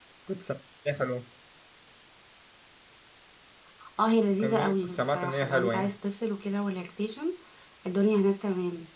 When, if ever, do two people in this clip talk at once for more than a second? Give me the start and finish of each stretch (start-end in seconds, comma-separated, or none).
4.4-5.9